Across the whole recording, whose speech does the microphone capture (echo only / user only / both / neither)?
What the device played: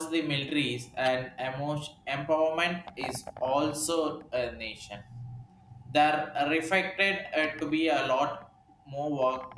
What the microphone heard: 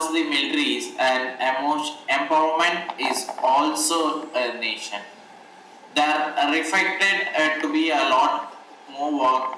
echo only